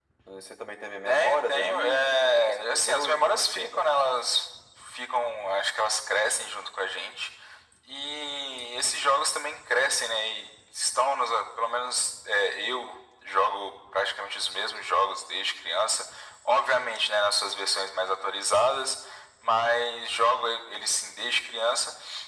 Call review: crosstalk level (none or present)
present